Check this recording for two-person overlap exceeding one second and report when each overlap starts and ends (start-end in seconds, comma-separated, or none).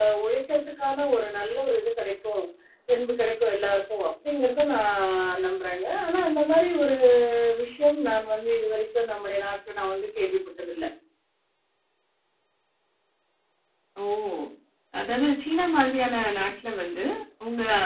none